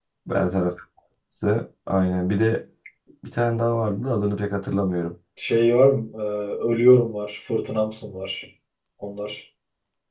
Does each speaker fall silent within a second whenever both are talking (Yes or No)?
Yes